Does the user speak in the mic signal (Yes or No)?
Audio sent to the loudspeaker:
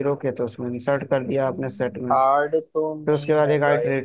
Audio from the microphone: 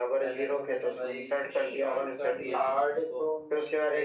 Yes